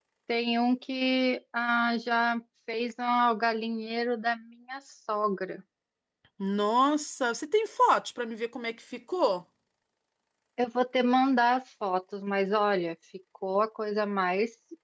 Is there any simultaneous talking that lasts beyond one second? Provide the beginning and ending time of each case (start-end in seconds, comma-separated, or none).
none